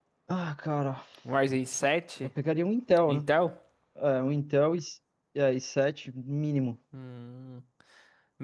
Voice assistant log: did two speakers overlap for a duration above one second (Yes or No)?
No